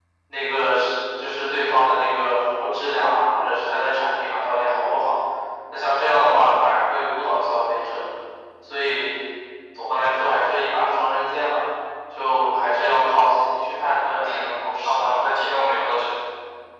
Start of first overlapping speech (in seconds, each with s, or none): 14.2 s